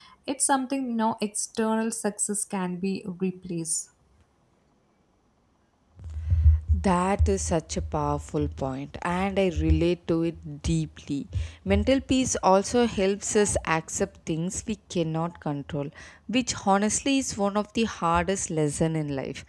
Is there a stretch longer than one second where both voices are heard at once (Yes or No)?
No